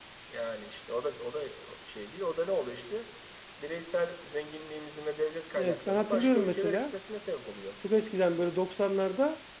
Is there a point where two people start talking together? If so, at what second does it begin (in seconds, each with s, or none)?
5.6 s